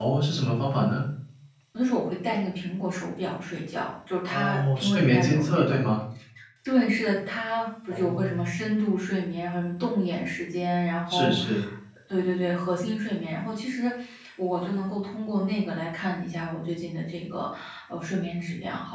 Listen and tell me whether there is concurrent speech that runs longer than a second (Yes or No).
Yes